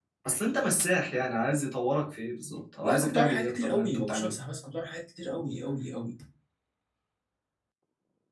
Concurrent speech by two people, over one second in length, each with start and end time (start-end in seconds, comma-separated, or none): 2.8-4.3